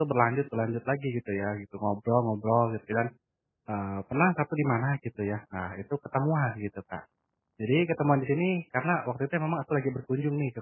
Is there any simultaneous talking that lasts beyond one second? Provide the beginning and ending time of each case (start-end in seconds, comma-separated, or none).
none